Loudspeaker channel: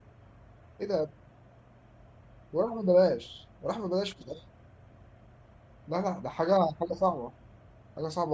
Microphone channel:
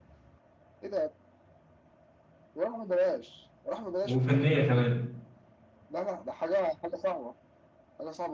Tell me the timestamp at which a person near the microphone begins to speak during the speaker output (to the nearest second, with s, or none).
4 s